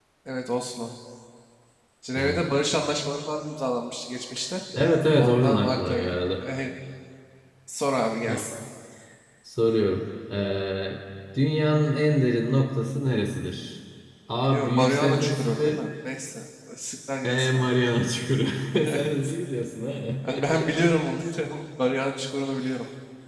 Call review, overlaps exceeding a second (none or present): present